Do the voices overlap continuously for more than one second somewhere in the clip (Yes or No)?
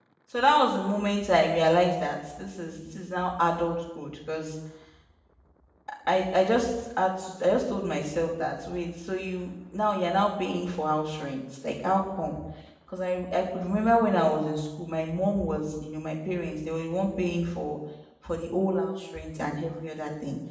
No